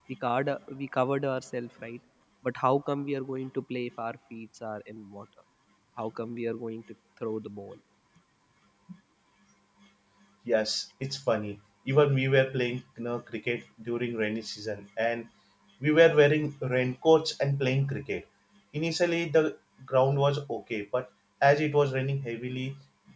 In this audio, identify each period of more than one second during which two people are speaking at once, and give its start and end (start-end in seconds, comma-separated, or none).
none